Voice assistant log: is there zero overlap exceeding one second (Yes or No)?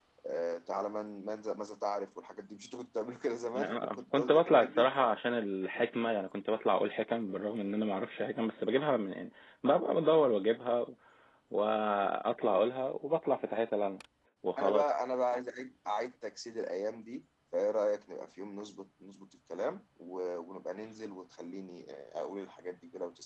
No